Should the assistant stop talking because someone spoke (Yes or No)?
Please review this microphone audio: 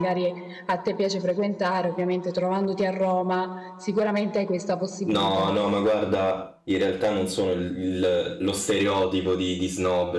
Yes